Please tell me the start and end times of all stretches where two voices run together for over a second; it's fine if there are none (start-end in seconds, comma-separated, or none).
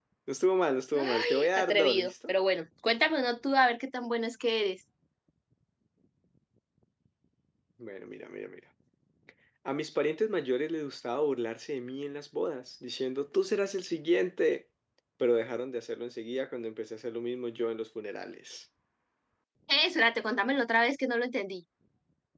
0.9-2.3